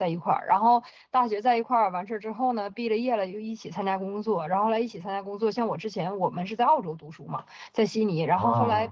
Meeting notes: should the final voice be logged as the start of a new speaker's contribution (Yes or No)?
No